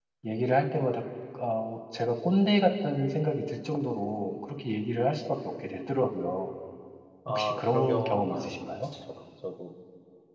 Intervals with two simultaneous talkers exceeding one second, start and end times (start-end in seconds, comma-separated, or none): 7.3-8.6